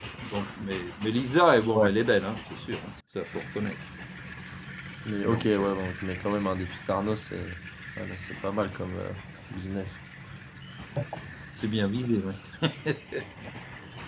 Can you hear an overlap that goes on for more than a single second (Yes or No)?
No